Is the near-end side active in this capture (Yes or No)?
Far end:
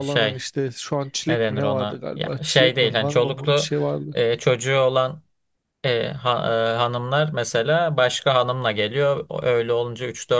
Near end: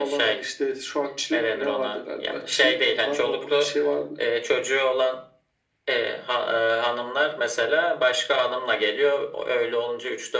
No